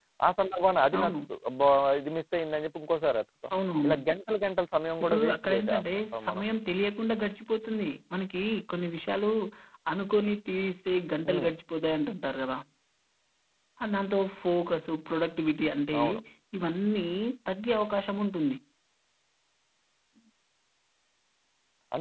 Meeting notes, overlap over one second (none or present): present